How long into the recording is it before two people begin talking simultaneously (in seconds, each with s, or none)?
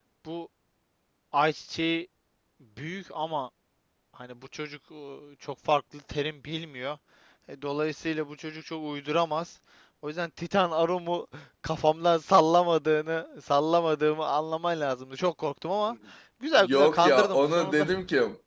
16.5 s